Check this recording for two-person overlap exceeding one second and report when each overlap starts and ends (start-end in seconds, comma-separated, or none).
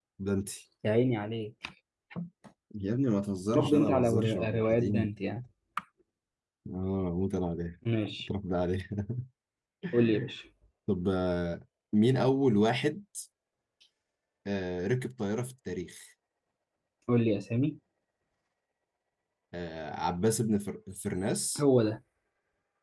3.5-5.1